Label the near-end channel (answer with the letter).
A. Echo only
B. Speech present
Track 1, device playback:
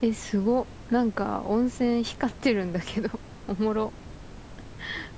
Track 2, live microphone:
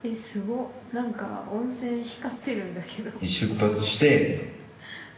B